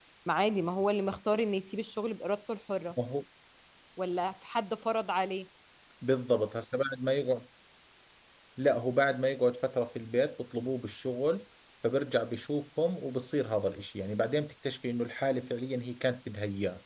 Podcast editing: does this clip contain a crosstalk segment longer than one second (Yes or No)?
No